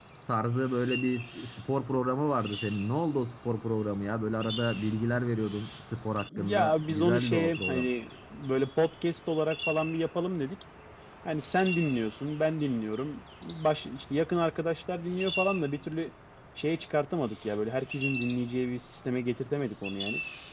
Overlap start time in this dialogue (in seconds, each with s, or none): 6.3 s